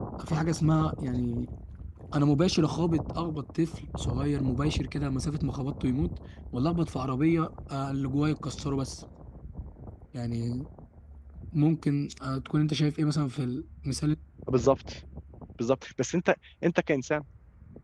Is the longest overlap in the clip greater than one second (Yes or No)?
No